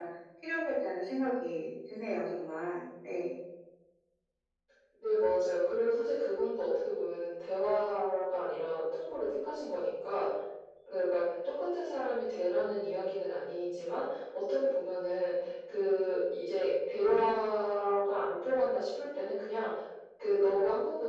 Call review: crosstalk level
none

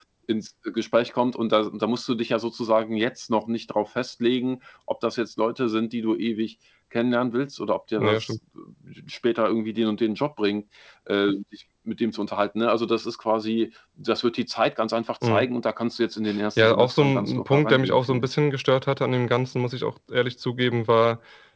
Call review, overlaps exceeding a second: present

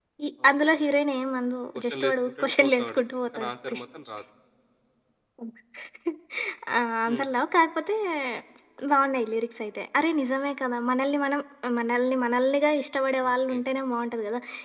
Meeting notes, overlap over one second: present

